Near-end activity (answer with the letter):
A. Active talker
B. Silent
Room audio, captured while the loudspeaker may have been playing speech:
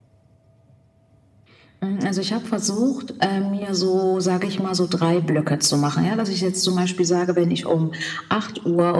B